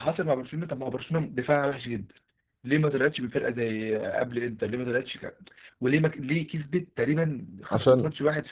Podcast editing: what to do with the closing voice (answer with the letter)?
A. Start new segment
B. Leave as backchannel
B